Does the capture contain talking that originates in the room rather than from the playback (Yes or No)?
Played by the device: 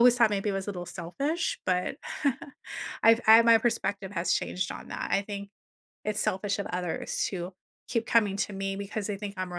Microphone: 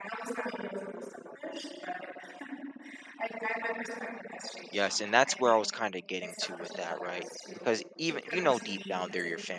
Yes